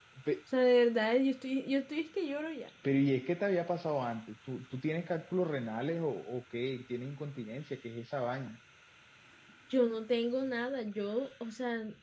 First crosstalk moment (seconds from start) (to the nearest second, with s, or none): none